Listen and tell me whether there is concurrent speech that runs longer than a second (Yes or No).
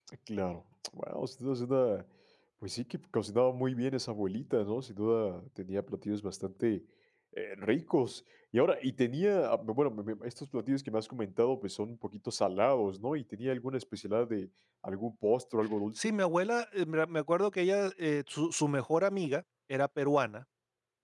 No